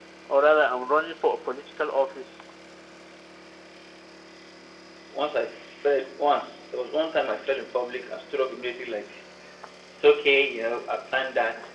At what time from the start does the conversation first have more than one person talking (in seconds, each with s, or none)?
none